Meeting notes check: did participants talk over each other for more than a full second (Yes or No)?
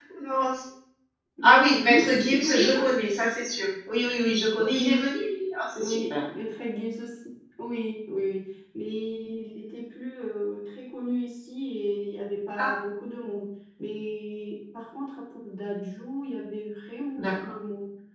Yes